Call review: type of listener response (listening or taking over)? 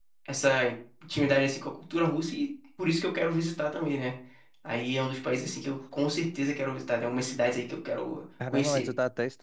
taking over